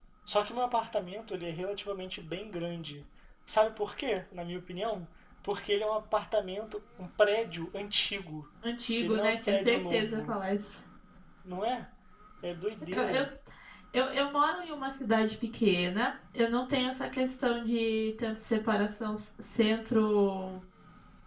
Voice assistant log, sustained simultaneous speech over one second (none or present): present